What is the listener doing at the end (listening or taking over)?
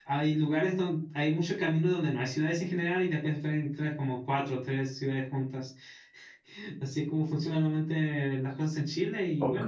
taking over